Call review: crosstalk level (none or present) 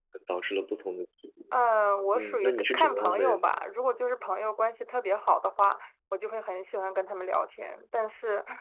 present